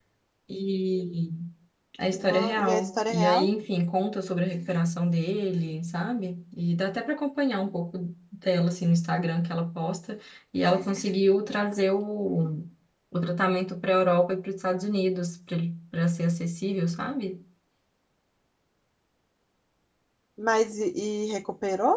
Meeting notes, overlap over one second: present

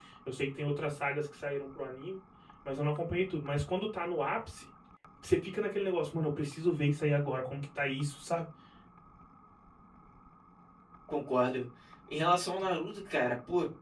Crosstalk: none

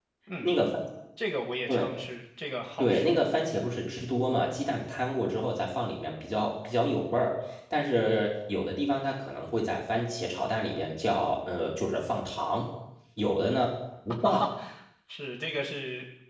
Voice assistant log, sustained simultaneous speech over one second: none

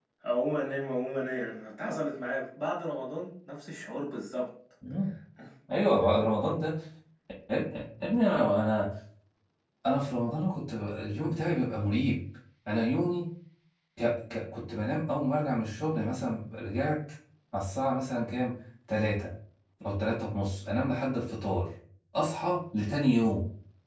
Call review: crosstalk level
none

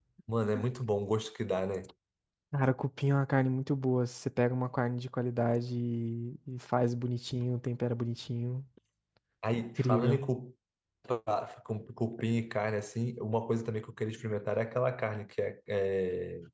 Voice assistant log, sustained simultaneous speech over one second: none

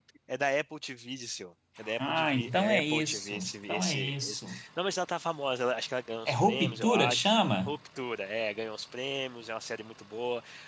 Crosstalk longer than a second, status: present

